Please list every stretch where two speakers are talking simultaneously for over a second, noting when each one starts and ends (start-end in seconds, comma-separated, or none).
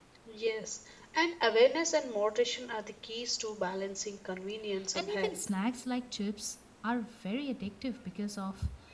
none